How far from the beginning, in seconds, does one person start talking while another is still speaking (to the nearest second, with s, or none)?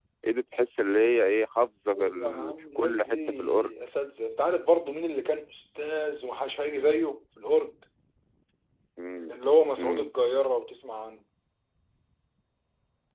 2 s